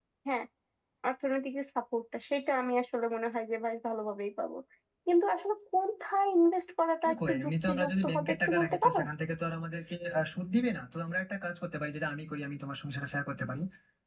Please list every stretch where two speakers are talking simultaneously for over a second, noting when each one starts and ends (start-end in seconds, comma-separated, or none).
7.1-9.0